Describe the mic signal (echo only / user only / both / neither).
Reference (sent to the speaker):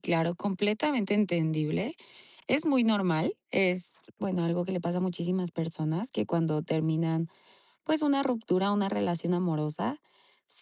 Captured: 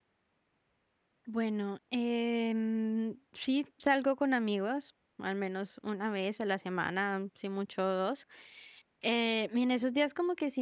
user only